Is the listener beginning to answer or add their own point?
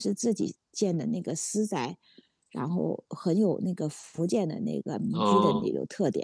No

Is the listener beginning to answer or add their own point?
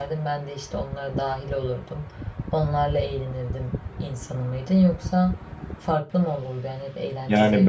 Yes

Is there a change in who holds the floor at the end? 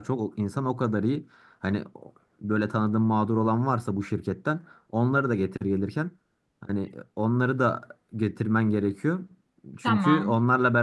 No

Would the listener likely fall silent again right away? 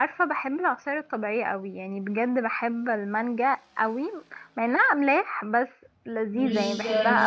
No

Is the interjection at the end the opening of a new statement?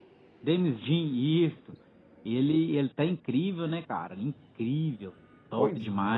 Yes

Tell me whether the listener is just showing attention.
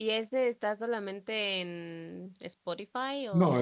No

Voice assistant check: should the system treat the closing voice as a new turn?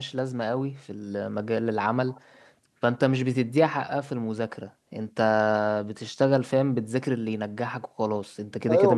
Yes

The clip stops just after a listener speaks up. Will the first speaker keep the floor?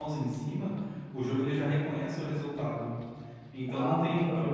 Yes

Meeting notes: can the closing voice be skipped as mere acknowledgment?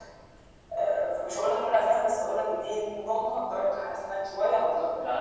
No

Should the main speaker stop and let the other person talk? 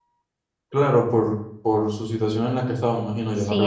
Yes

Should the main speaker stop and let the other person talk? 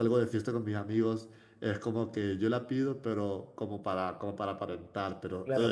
Yes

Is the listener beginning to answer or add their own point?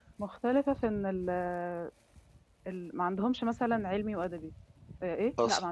No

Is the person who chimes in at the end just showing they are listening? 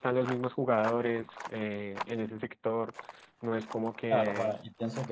No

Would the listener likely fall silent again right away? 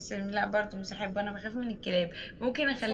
Yes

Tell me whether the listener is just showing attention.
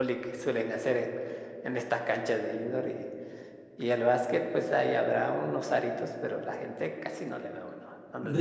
No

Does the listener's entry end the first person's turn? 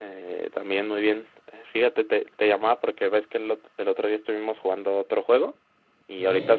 No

